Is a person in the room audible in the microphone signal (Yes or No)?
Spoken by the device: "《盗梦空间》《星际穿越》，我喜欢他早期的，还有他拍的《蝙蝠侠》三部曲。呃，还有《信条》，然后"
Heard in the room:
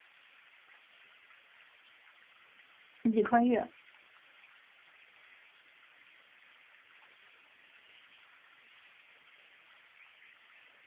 Yes